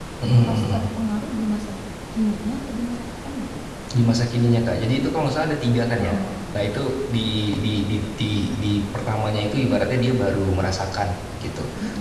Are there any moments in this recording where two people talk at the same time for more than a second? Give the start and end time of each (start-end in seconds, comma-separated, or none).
none